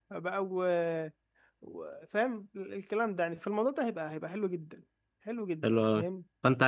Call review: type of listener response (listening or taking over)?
taking over